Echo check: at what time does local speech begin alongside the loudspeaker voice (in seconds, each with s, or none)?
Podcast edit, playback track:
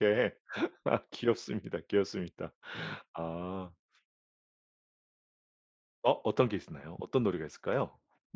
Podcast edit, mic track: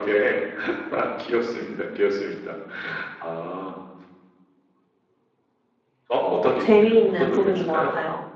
6.2 s